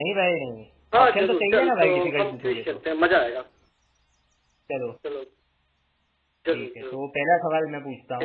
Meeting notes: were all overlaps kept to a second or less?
No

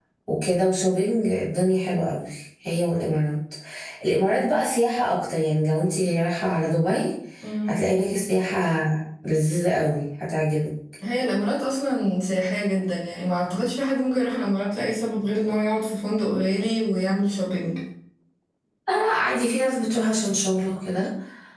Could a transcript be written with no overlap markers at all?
Yes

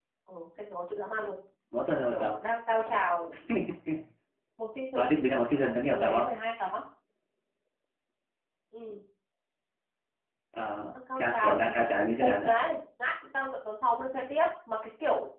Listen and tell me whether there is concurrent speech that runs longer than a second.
Yes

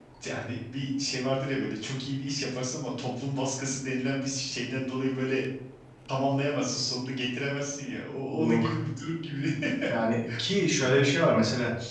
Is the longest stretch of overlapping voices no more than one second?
Yes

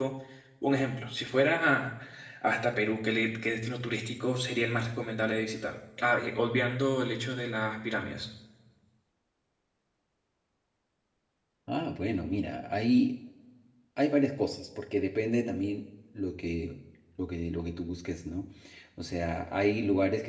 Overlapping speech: No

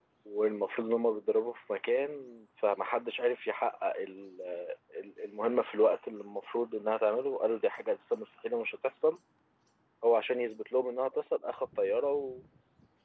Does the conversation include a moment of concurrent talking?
No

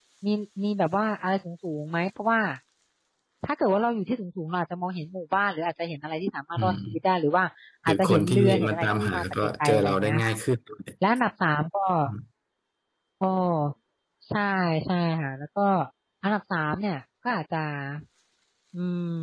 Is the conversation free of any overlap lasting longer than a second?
No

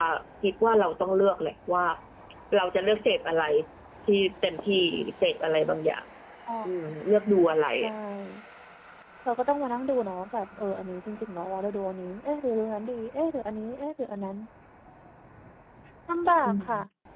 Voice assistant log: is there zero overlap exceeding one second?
No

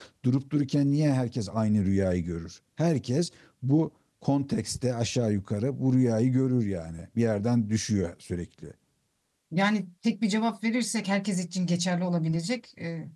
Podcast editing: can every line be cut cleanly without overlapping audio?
Yes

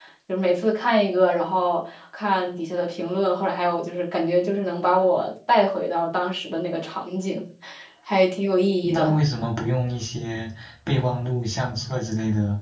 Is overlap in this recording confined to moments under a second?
Yes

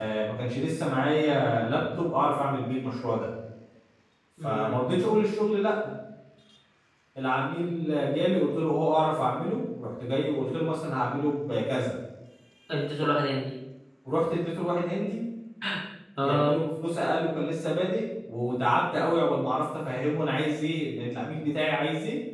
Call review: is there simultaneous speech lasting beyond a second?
No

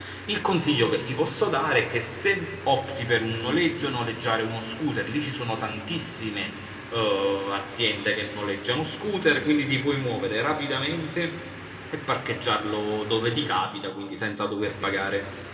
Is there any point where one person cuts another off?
No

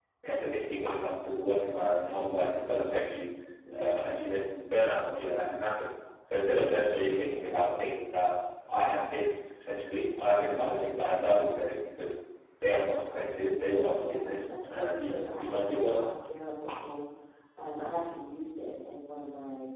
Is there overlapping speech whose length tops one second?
Yes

